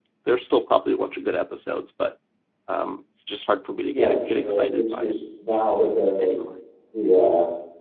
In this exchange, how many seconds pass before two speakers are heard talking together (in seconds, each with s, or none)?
3.9 s